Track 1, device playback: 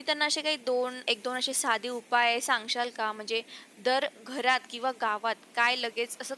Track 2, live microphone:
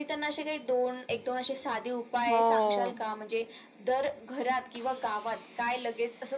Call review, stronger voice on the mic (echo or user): user